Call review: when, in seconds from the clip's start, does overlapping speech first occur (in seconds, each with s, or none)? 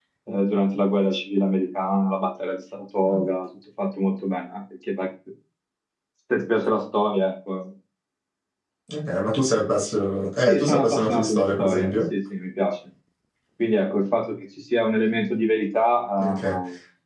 10.5 s